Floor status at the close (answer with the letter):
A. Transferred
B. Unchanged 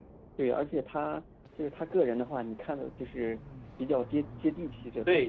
A